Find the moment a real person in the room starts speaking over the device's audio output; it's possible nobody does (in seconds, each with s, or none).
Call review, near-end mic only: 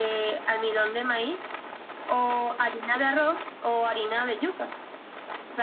none